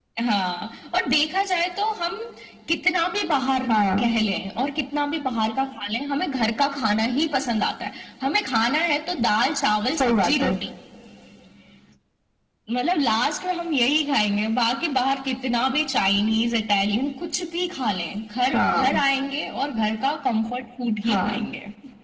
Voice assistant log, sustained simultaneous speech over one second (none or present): none